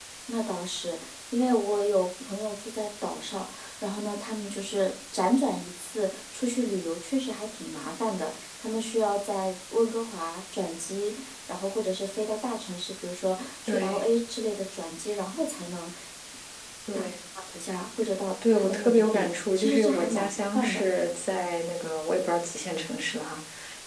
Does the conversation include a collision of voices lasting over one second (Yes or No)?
Yes